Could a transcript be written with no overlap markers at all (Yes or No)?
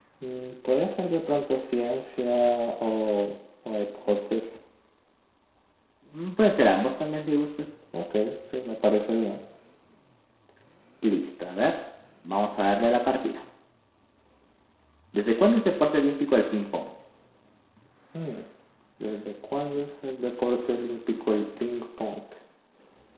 Yes